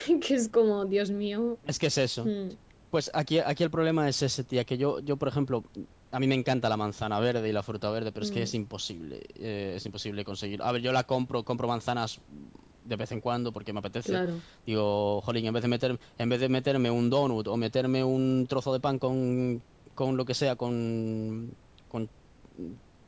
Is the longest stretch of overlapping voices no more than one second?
Yes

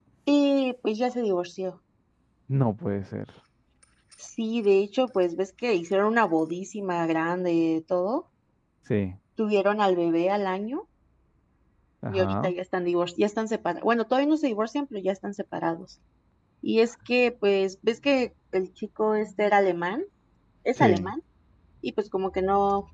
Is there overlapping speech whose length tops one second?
No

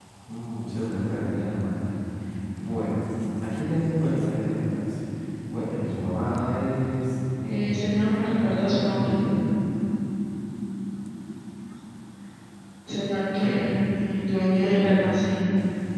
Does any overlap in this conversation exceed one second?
Yes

